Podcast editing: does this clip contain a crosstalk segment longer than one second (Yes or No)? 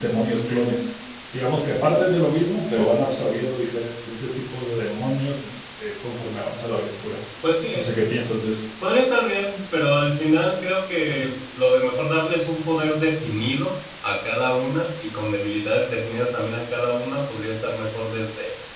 No